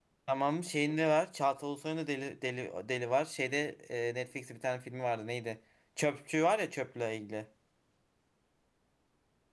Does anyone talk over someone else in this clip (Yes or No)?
No